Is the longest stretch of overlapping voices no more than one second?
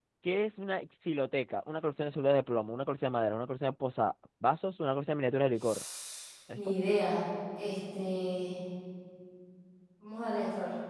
Yes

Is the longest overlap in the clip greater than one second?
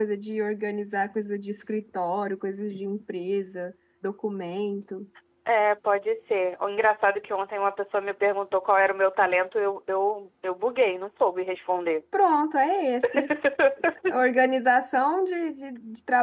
No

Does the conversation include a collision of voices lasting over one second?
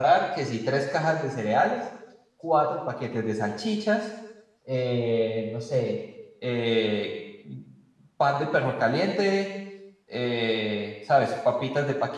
No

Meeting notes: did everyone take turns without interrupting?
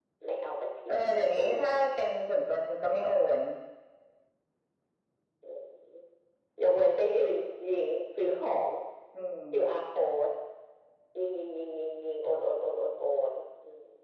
No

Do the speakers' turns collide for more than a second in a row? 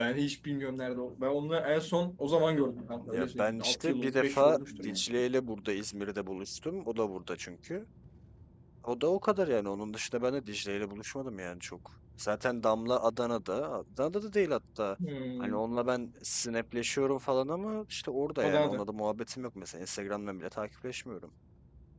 Yes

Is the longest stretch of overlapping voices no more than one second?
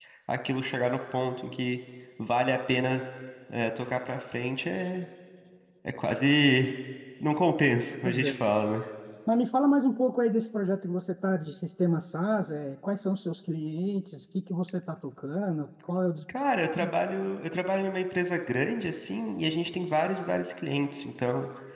Yes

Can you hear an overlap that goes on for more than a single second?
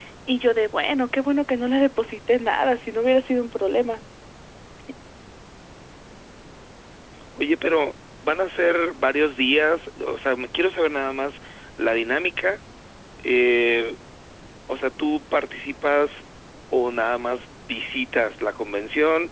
No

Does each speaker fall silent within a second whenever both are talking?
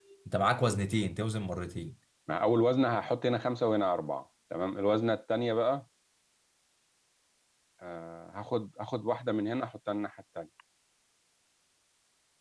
Yes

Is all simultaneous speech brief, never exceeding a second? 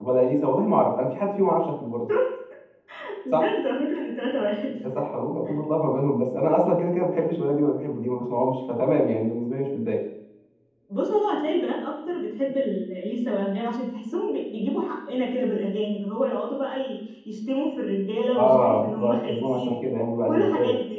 No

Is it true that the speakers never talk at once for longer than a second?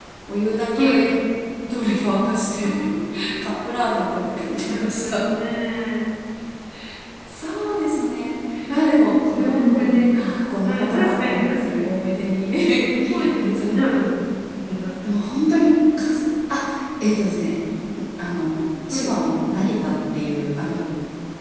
No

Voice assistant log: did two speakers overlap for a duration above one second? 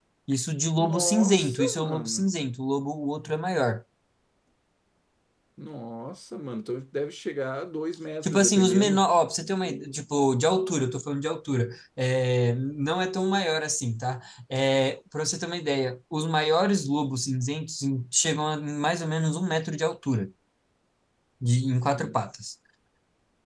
Yes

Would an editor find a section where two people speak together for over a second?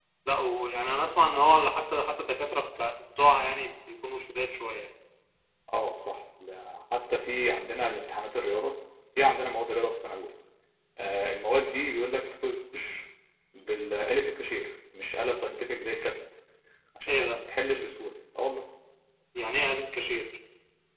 No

